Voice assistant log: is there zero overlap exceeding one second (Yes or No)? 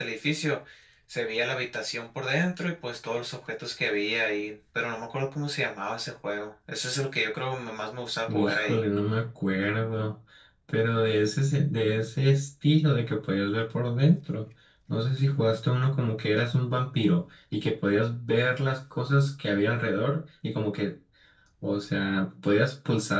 Yes